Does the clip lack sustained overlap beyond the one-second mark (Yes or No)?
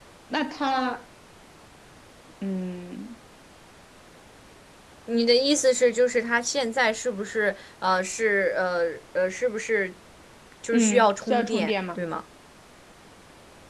No